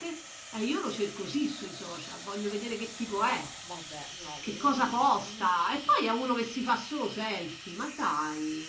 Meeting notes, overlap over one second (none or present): none